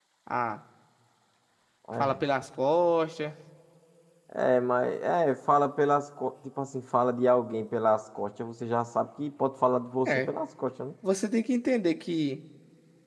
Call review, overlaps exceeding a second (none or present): none